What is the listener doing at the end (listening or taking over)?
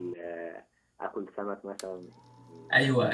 taking over